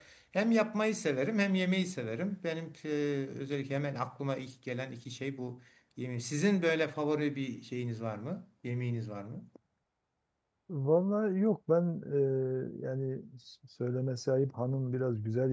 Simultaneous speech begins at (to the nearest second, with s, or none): none